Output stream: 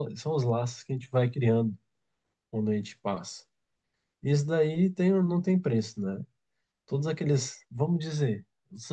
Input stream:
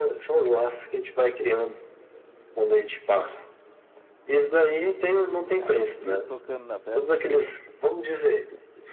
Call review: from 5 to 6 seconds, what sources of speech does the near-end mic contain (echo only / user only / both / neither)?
both